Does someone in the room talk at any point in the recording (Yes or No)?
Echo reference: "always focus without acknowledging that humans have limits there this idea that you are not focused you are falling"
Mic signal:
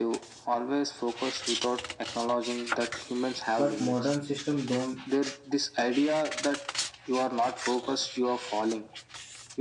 Yes